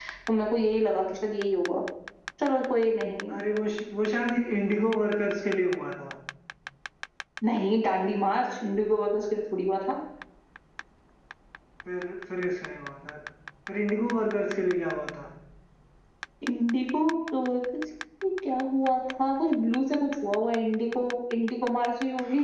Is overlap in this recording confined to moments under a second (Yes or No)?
Yes